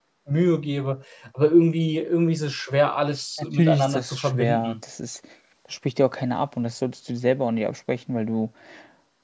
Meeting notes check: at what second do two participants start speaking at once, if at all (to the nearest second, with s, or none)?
3 s